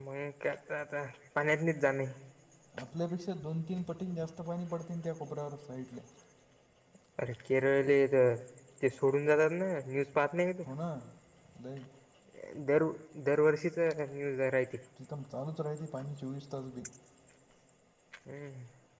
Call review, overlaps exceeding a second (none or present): none